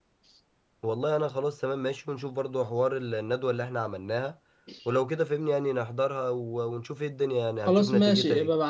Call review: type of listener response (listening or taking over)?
taking over